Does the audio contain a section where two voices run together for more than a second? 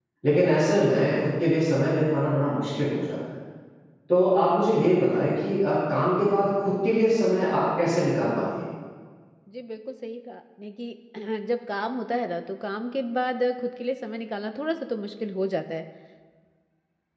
No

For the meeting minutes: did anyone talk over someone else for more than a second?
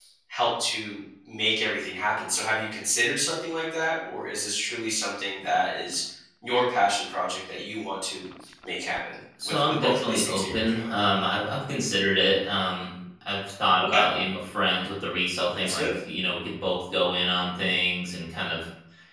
Yes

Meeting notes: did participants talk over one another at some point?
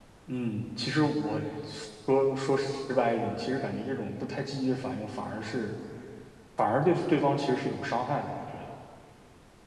No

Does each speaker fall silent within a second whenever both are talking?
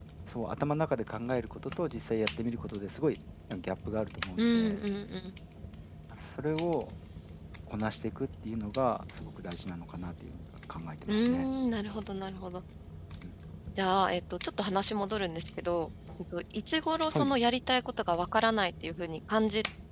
Yes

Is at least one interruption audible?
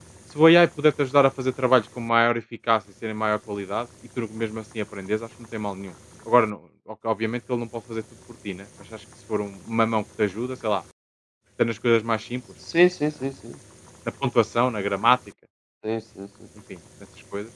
No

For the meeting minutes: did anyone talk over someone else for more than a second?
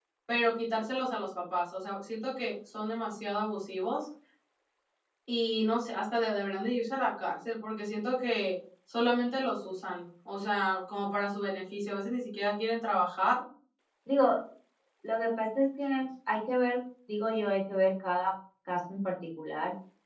No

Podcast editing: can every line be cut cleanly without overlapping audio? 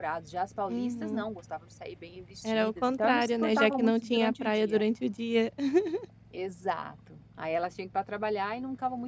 No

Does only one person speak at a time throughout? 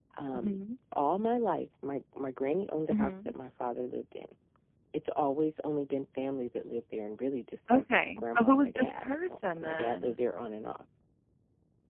No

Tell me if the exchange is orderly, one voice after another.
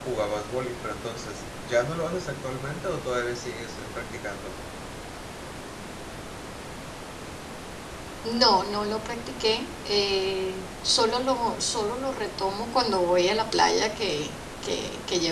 Yes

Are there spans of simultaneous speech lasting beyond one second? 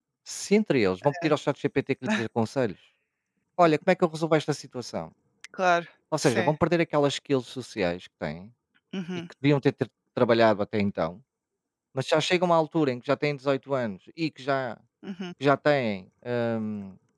No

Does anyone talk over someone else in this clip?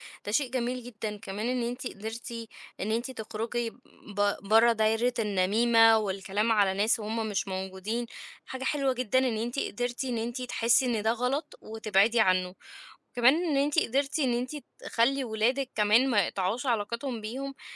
No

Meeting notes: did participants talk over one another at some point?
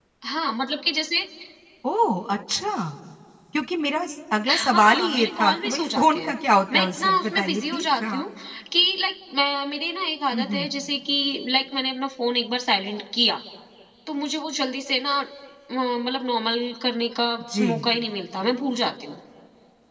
Yes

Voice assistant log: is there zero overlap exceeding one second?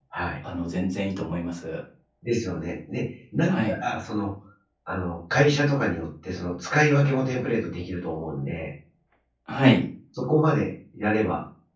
Yes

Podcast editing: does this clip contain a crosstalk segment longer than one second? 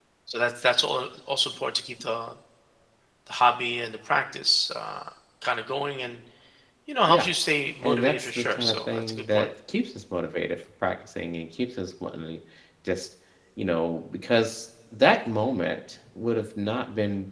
Yes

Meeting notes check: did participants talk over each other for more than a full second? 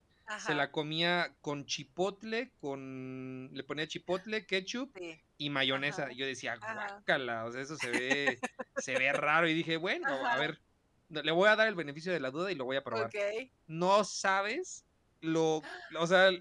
No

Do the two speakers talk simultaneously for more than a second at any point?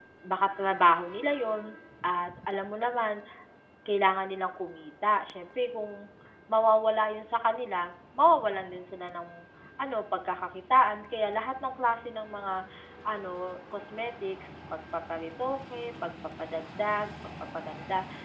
No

